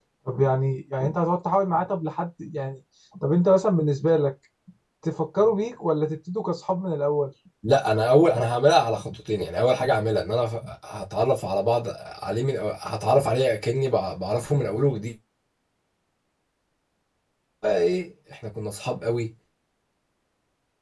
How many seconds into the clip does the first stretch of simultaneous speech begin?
none

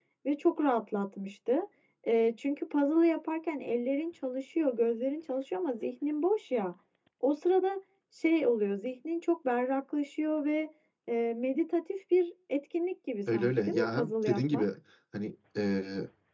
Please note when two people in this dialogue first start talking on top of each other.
13.3 s

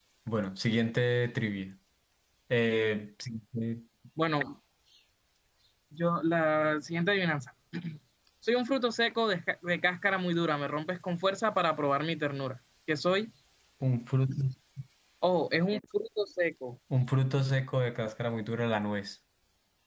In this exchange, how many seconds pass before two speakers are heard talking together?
none

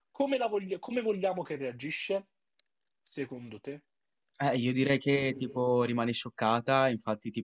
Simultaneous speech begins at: none

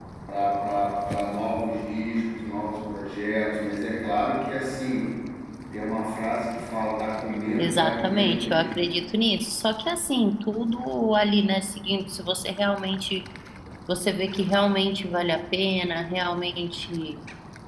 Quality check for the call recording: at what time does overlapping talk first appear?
7.6 s

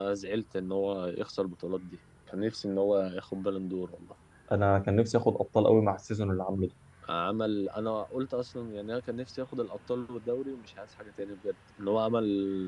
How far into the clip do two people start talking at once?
none

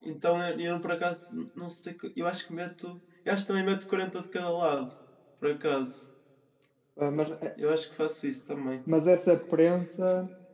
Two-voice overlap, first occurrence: none

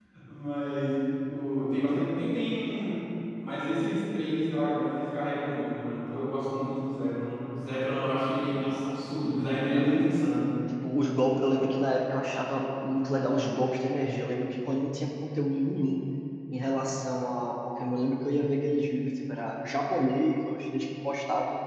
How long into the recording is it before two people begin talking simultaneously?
none

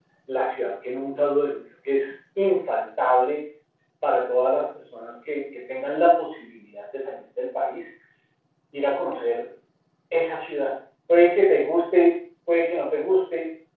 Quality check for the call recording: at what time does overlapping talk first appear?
none

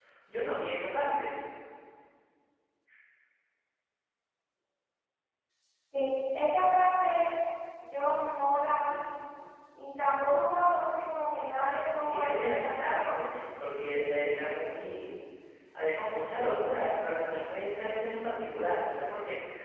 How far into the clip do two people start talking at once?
12.0 s

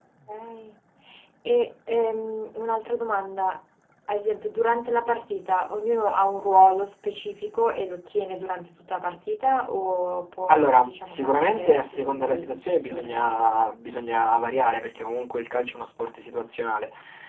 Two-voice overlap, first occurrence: 10.5 s

